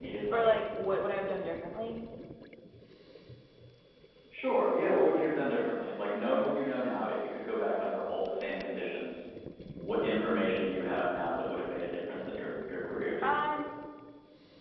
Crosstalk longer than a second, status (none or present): none